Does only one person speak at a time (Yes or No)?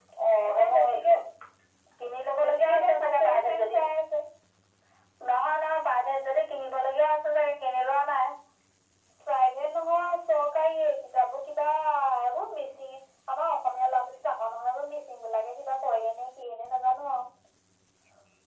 No